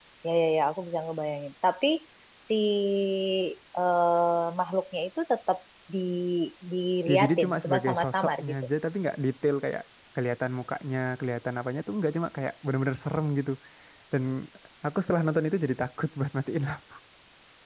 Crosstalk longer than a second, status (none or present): present